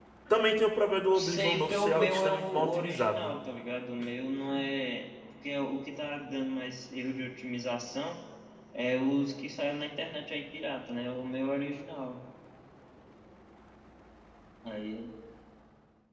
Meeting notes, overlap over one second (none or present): present